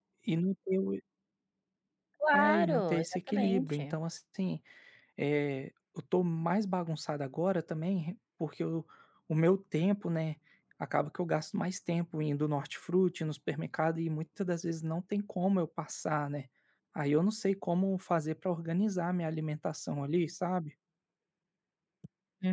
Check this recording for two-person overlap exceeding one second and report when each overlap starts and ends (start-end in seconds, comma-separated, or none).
2.3-4.0